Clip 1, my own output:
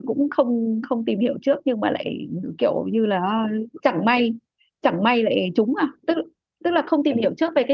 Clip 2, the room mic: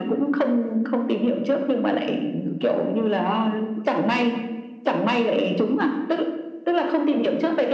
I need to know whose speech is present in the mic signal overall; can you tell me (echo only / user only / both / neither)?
echo only